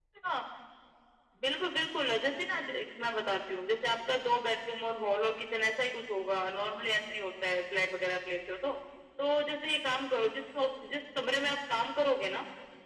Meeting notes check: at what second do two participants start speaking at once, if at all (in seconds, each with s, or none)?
none